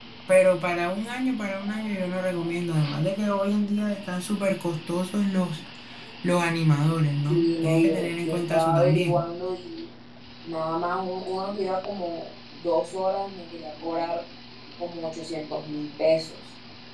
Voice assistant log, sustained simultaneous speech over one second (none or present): present